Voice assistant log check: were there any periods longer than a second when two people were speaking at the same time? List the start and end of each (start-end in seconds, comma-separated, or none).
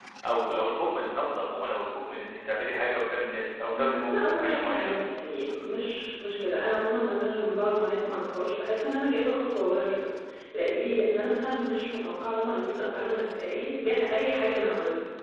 3.8-5.0